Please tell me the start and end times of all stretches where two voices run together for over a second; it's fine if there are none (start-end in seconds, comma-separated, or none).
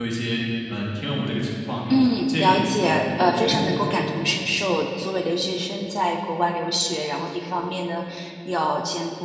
1.9-3.9